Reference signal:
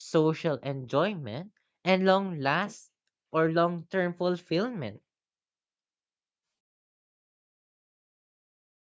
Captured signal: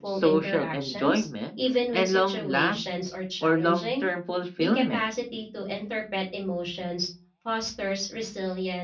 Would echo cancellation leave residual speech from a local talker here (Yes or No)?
Yes